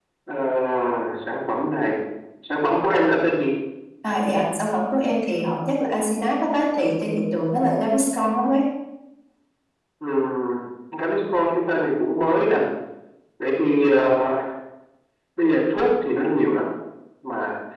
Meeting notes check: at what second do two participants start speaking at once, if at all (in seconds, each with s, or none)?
none